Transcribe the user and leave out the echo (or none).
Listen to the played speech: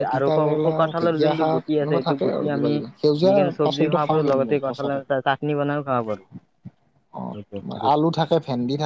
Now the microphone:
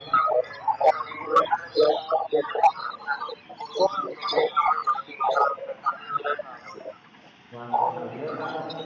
মাছটো ভাজিও খাওঁ